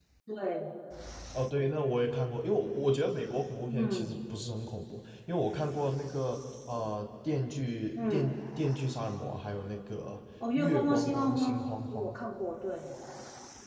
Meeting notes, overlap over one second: present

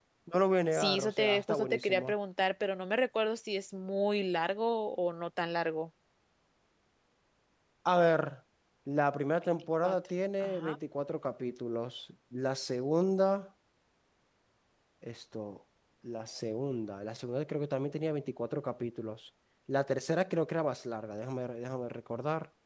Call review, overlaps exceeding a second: present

